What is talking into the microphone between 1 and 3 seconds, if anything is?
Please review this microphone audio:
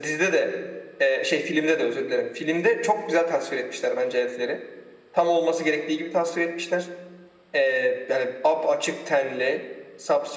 echo only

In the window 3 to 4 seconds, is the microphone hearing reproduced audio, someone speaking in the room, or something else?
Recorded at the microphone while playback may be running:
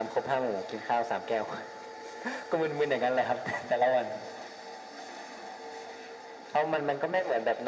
echo only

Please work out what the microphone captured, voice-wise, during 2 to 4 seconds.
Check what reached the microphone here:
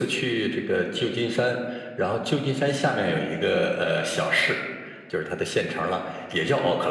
echo only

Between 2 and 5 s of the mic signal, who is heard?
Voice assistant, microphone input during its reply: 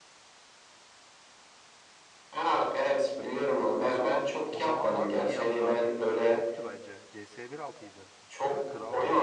both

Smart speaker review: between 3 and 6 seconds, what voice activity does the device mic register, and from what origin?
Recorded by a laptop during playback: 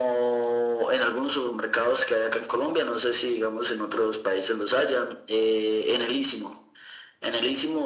echo only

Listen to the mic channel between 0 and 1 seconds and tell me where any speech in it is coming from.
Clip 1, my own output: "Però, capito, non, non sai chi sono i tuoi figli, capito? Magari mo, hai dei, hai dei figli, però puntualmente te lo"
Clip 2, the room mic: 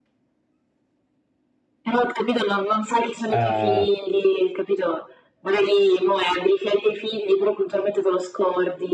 neither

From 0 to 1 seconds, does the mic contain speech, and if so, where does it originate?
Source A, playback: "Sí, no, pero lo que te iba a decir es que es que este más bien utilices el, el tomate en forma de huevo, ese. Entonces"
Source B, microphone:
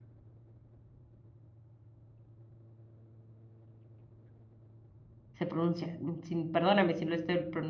neither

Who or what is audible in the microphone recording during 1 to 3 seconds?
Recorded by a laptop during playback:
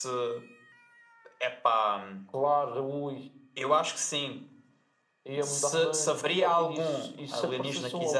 echo only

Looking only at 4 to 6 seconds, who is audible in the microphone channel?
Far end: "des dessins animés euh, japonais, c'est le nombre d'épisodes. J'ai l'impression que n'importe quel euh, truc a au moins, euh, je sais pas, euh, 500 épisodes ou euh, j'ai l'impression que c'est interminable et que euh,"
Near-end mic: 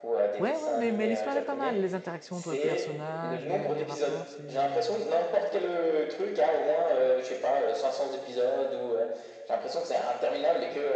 both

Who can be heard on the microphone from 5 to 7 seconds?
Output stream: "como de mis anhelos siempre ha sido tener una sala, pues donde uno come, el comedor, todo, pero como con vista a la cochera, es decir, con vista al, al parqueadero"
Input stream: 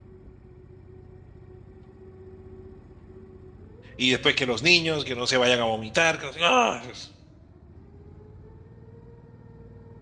user only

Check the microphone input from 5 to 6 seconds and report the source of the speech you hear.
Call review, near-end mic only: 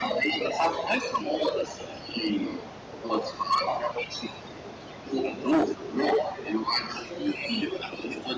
echo only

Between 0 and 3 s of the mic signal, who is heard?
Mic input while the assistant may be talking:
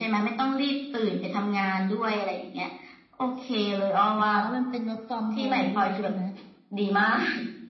echo only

